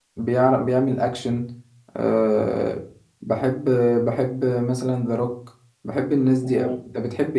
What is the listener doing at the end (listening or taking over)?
taking over